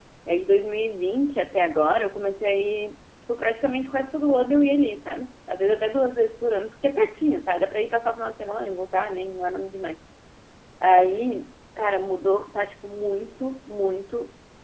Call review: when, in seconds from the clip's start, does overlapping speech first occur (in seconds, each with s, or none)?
none